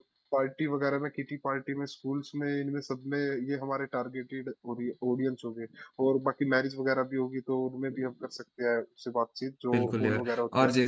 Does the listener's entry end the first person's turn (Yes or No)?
Yes